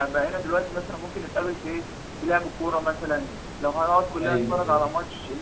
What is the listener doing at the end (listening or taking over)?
listening